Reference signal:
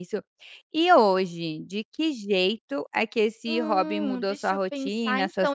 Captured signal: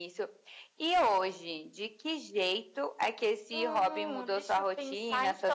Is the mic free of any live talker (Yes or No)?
Yes